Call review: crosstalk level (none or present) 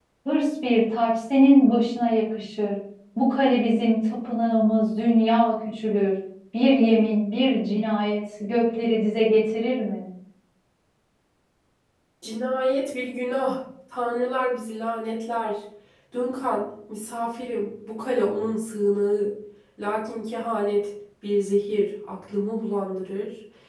none